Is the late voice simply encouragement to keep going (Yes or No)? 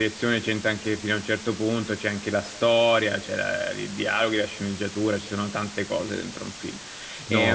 Yes